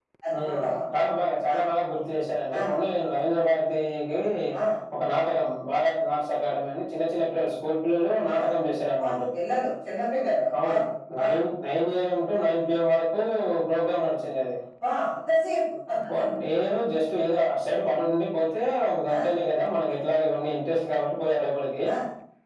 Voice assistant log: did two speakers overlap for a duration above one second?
No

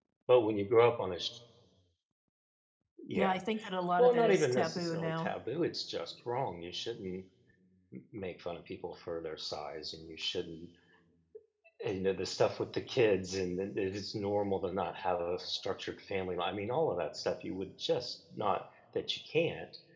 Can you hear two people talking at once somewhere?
Yes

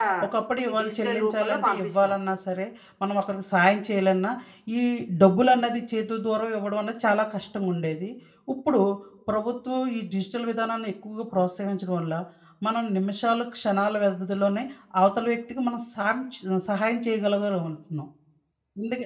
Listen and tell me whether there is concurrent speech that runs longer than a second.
Yes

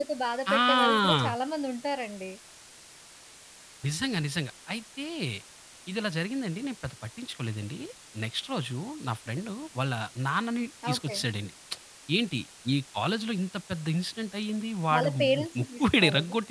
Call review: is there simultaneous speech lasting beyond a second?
Yes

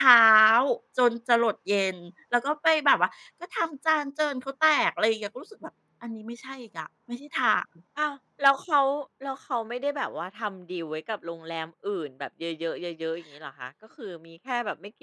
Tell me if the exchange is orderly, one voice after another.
Yes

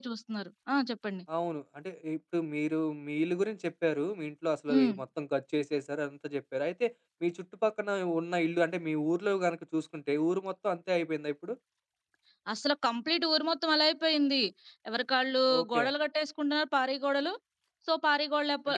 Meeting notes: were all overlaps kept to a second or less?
Yes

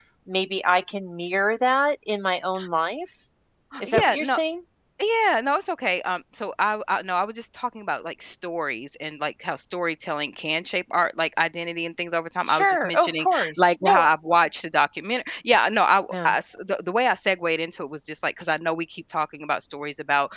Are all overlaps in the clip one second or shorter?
No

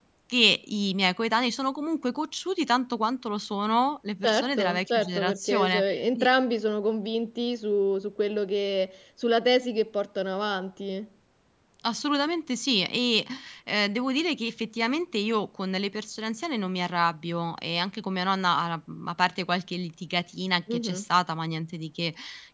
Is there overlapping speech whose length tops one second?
Yes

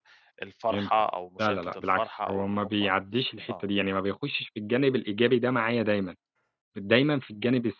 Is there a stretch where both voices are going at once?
Yes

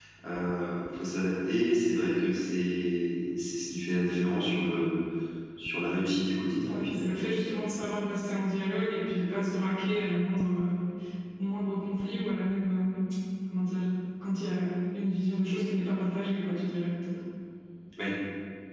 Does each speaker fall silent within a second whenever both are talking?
Yes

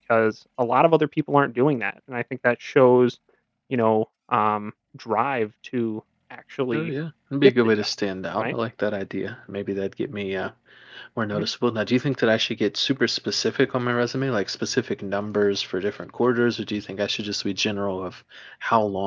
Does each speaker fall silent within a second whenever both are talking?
Yes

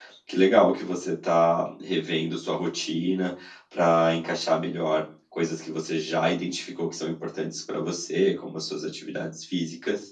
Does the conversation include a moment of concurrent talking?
No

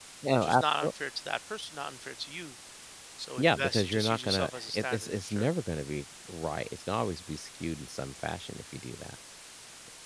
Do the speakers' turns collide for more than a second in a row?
Yes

